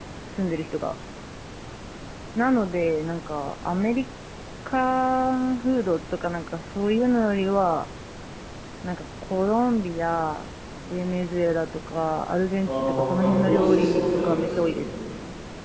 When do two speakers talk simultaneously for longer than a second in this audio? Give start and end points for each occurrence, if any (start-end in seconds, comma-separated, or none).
12.7-14.9